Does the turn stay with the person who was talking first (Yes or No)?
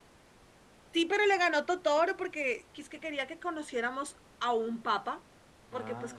Yes